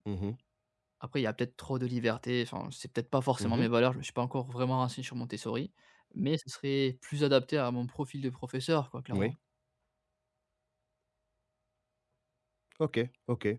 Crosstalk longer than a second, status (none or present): none